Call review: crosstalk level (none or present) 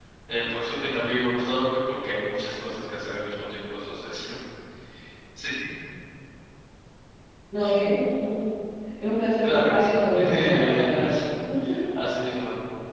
present